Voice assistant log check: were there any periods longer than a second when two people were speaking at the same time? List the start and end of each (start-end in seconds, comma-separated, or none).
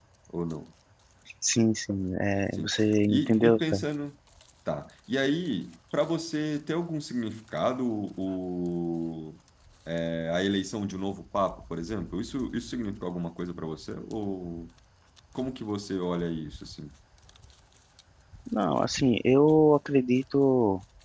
2.5-3.8